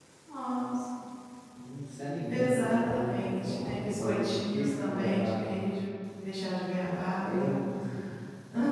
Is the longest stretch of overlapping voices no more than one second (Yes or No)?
No